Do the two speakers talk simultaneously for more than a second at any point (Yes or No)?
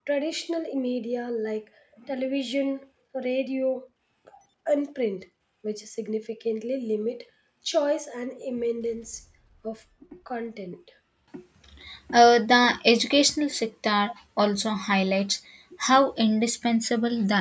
No